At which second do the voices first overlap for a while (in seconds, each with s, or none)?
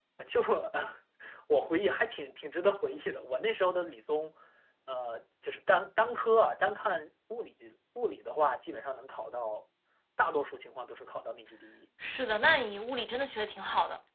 none